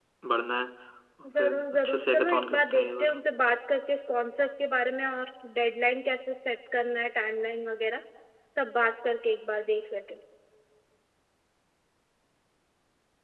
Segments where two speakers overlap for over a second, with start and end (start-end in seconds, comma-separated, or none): 1.4-3.2